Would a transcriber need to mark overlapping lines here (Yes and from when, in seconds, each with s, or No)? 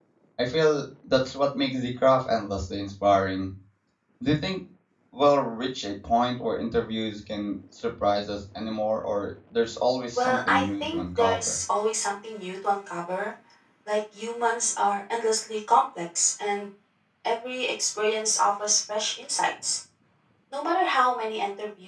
Yes, from 10.2 s